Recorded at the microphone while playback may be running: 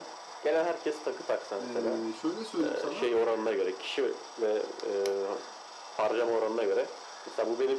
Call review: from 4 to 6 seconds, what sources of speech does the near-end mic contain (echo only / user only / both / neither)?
echo only